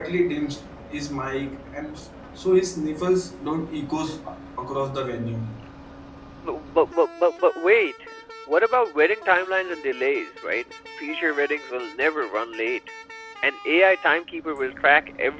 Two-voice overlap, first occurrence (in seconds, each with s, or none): none